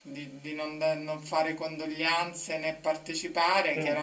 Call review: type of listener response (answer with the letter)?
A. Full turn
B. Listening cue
B